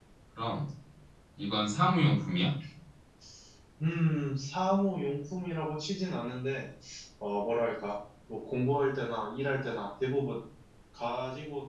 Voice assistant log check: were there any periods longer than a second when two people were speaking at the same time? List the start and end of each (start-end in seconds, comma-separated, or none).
none